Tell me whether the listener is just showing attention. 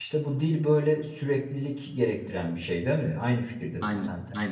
No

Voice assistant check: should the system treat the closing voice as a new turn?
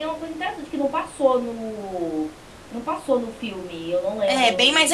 Yes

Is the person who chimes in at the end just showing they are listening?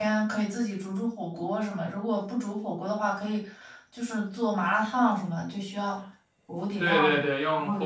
No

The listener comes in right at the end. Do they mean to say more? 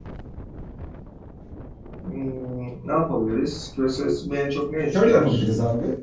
Yes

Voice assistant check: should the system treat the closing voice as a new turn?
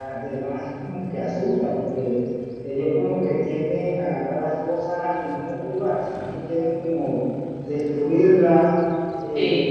No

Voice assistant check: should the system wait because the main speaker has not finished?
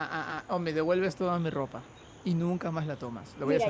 No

